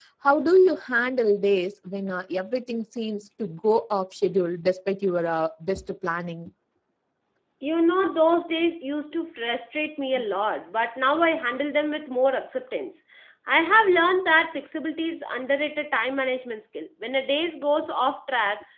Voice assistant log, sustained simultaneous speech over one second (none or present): none